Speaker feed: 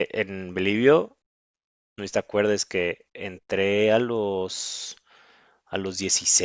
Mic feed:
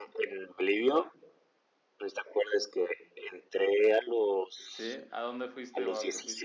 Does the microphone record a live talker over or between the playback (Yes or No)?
Yes